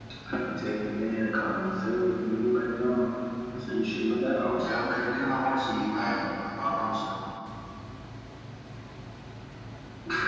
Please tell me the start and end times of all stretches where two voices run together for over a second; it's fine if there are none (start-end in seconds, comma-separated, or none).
none